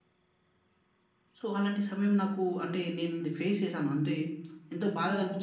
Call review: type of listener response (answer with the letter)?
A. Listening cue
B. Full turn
B